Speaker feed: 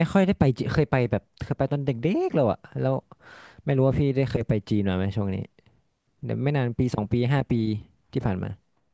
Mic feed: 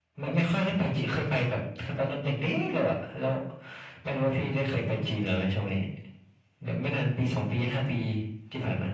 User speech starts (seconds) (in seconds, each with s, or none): none